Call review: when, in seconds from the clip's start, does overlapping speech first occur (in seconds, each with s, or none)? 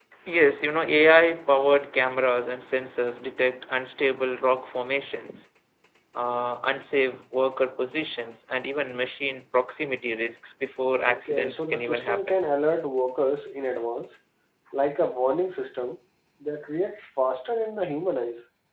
11.0 s